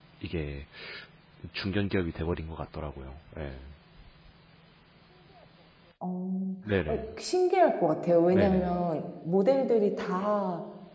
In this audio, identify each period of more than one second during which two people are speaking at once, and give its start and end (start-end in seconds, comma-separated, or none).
none